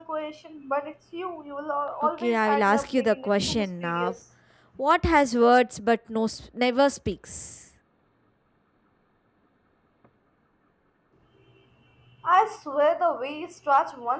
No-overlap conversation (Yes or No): No